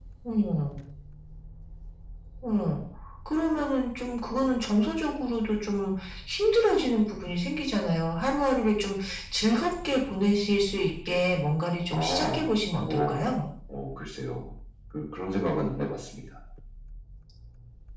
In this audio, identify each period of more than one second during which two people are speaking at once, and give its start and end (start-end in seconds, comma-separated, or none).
none